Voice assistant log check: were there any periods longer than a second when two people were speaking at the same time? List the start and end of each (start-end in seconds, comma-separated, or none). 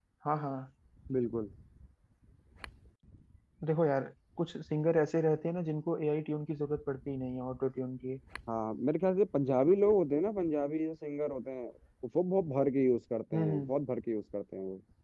none